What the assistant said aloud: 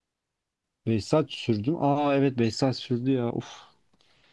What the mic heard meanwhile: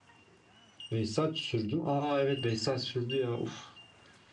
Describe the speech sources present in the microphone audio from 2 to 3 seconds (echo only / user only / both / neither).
echo only